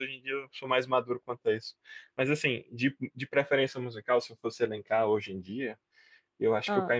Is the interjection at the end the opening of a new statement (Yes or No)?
No